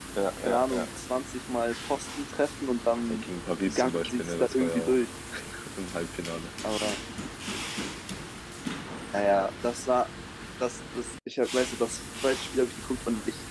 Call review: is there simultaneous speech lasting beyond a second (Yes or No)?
Yes